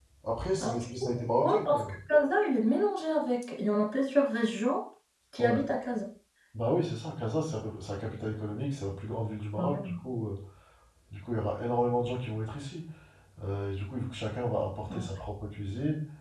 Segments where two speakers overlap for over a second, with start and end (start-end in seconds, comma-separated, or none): 0.6-1.8